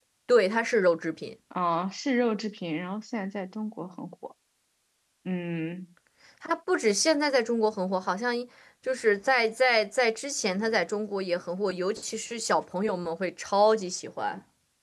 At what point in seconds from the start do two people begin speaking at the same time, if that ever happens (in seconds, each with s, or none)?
none